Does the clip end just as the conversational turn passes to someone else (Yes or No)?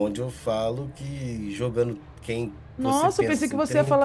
Yes